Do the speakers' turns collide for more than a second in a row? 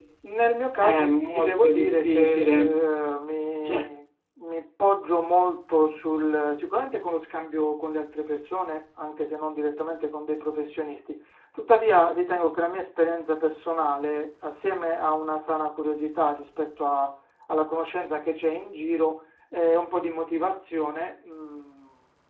Yes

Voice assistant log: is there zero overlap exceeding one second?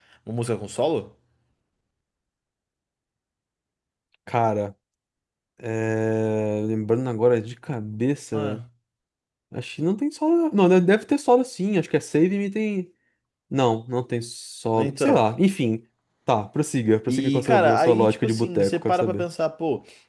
No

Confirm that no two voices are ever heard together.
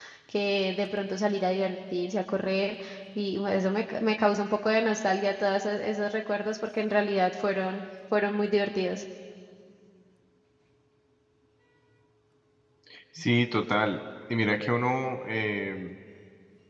Yes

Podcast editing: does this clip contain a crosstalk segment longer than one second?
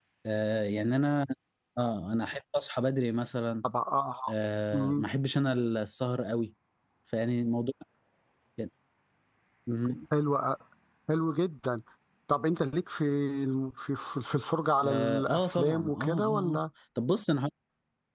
Yes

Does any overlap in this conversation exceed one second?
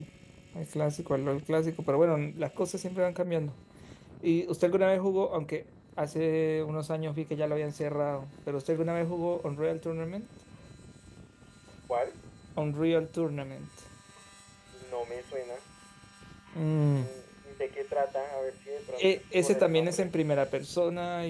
Yes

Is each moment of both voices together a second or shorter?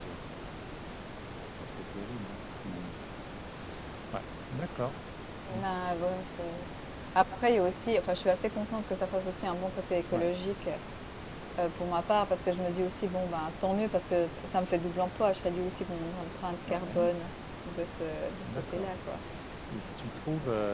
Yes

